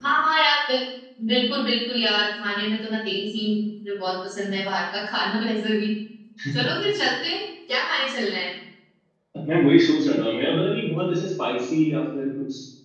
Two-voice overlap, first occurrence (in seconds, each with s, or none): none